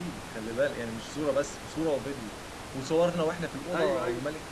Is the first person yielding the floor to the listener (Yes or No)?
No